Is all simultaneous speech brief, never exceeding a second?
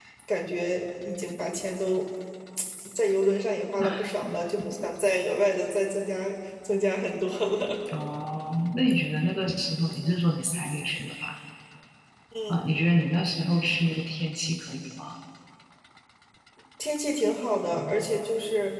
Yes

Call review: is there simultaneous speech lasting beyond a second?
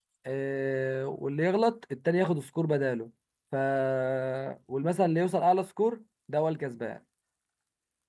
No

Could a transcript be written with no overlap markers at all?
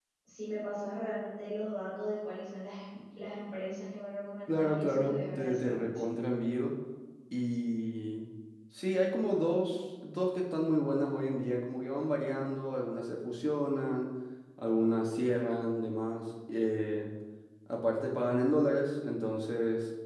No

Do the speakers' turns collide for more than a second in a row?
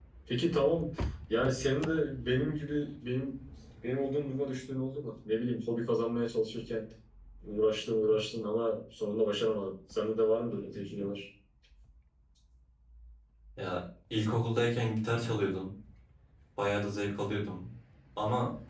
No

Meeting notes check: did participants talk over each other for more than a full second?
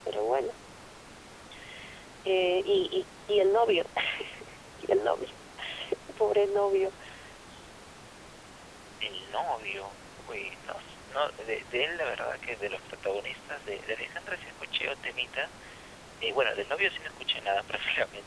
No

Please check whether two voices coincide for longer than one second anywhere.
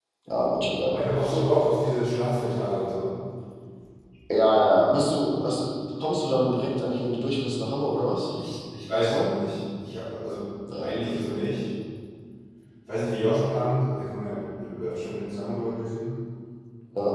No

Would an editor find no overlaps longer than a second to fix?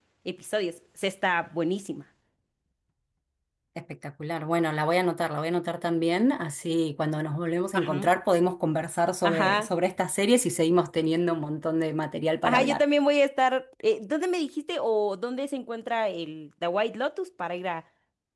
Yes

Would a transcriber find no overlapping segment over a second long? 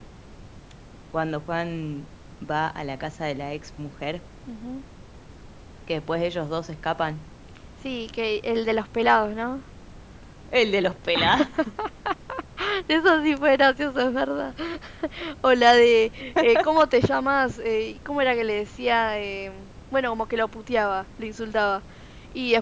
Yes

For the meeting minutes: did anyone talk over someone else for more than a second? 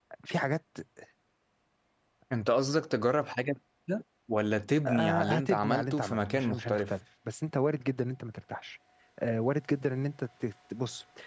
Yes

